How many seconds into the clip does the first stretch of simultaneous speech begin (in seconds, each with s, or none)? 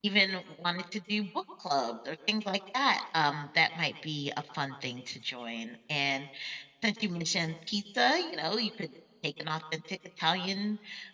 none